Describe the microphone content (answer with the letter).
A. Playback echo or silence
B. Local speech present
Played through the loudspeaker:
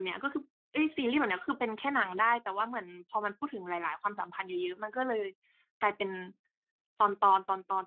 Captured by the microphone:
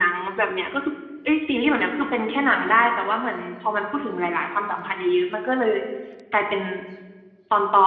A